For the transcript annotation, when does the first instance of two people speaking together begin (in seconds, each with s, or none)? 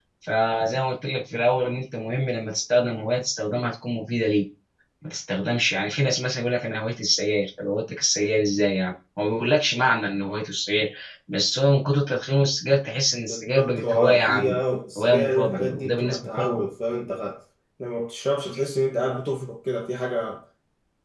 13.3 s